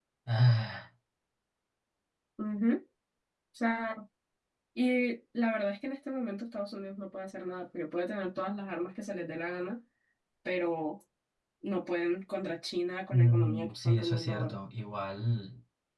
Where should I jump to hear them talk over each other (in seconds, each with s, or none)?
13.1 s